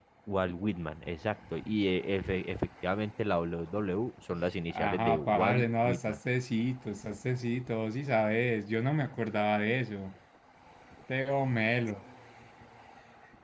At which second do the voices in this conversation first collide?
4.7 s

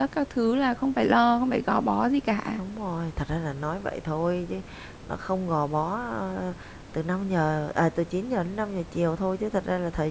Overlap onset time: none

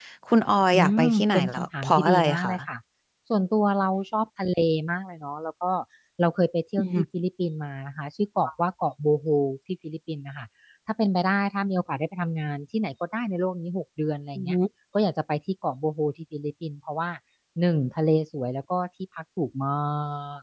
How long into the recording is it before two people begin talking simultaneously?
0.7 s

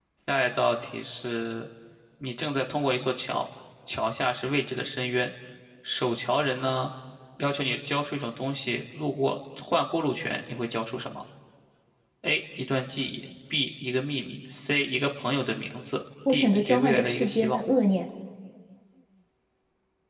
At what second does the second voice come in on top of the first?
16.2 s

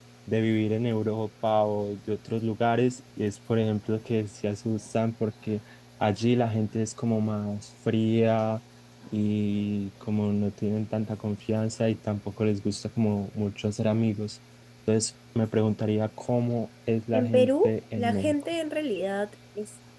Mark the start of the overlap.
17.1 s

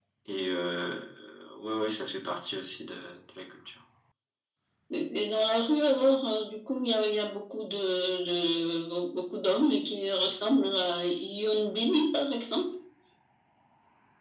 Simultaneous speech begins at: none

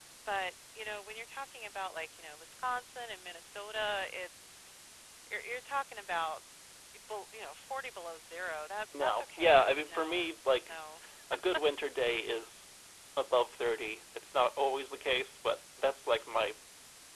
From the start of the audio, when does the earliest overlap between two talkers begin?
8.9 s

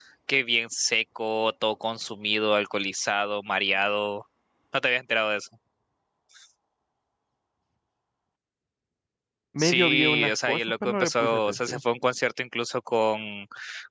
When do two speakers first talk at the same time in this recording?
9.6 s

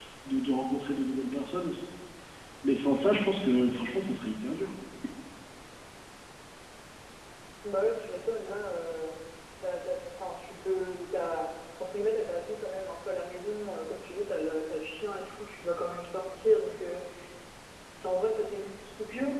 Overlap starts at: none

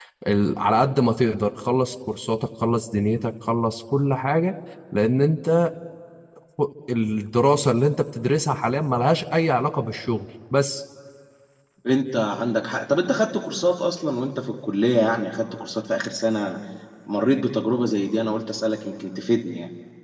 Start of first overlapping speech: none

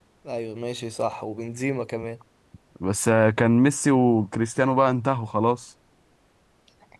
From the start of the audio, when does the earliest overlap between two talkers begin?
none

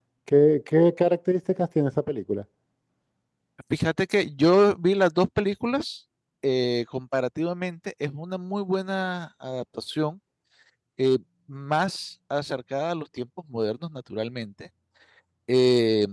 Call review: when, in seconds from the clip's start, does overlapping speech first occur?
none

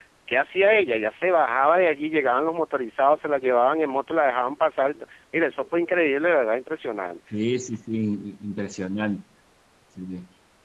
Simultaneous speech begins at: none

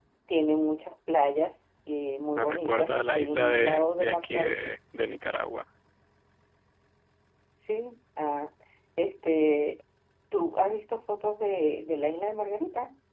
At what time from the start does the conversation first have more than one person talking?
2.4 s

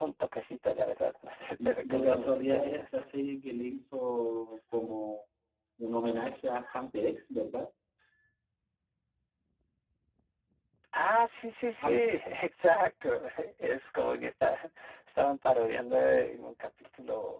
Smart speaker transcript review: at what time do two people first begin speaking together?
1.6 s

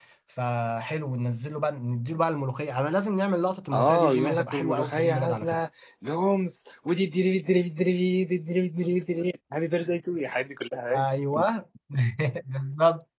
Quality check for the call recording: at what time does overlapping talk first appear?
3.7 s

